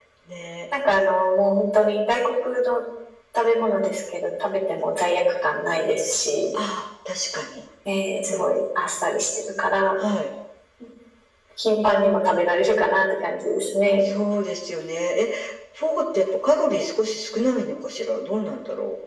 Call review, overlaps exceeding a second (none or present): none